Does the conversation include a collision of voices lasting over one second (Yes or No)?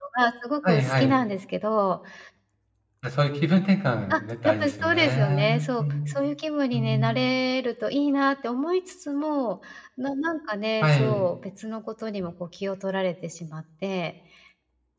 Yes